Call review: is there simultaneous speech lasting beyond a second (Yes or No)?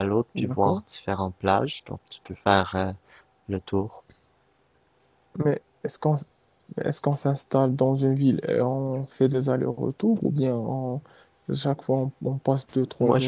No